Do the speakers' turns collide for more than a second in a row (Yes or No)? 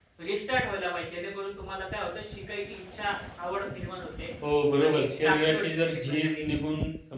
Yes